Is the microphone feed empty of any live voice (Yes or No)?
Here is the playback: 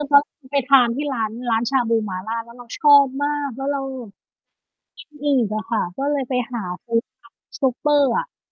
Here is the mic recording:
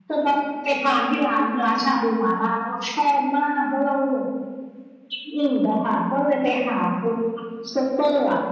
Yes